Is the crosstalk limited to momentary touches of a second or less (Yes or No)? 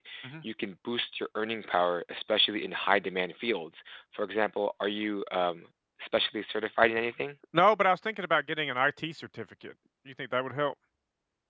Yes